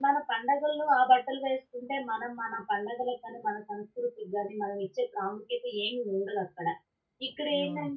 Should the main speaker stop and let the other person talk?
No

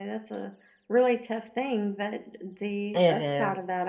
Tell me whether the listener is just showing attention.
Yes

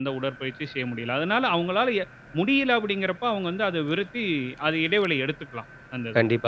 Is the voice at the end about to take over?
Yes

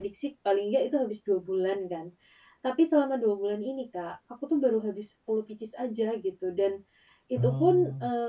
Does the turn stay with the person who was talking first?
Yes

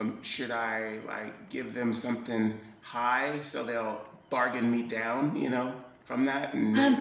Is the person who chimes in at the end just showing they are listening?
No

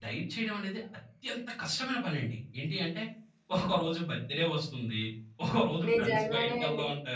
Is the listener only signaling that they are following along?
No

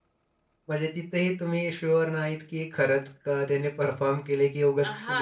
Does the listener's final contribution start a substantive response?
Yes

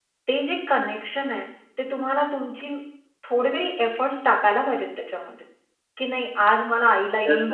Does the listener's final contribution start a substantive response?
Yes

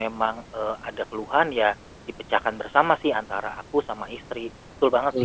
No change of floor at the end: No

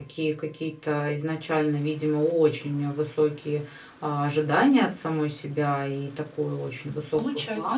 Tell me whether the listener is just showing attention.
Yes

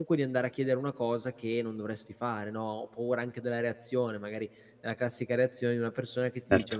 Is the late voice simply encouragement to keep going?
Yes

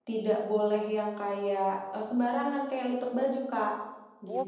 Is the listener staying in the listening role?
No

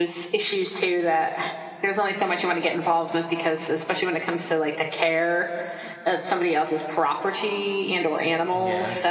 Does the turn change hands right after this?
No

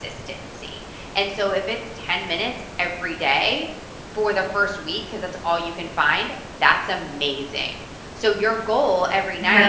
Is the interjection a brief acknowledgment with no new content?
Yes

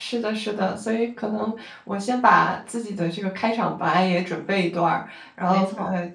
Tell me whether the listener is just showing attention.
Yes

